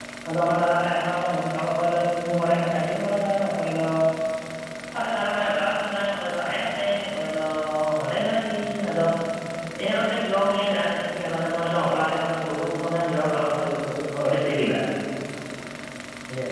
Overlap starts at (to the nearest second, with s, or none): none